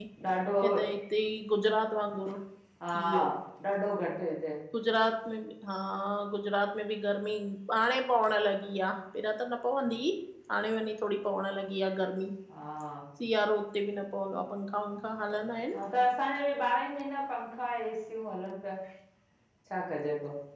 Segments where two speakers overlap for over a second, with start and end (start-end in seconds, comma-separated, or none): none